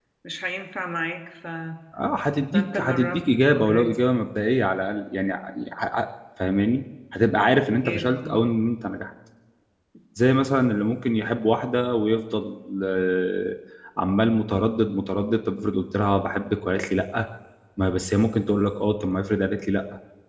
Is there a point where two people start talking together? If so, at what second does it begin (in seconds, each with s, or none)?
2.5 s